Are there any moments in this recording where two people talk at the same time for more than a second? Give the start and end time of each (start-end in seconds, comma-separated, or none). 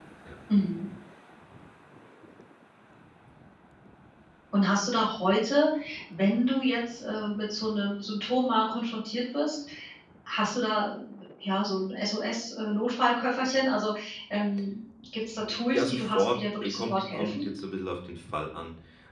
15.7-17.5